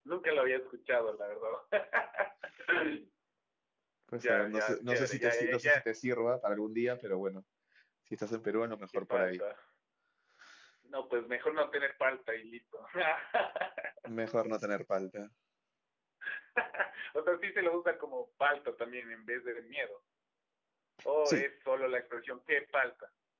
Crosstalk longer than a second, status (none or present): present